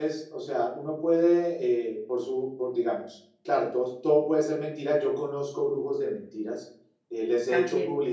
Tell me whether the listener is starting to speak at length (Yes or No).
No